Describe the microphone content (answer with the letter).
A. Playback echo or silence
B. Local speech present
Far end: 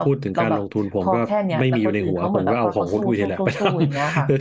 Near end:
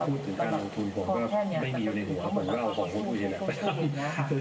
A